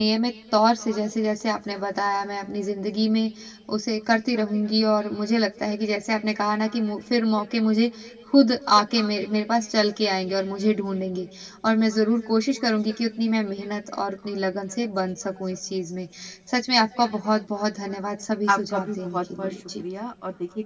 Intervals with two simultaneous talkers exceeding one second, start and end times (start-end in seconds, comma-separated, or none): 18.5-19.8